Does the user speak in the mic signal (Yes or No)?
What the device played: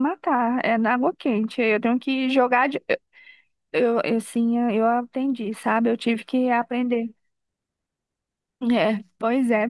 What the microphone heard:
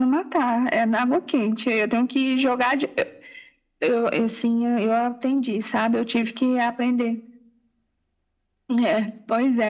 No